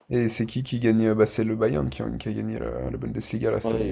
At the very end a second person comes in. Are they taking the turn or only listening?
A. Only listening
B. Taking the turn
B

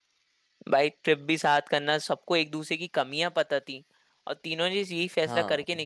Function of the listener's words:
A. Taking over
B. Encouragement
B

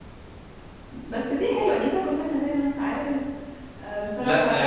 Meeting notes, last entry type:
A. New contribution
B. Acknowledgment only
A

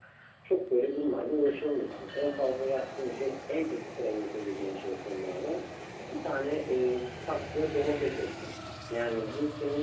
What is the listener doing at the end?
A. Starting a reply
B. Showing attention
B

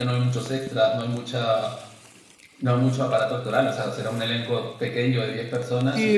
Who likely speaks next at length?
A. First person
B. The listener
B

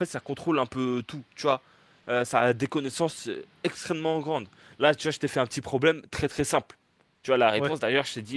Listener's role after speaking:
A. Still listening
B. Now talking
A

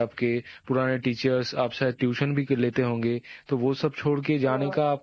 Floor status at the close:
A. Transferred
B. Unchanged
B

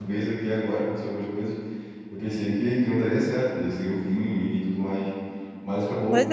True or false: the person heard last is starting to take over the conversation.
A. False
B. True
B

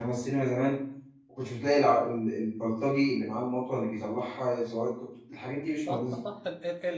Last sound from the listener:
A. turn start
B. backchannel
A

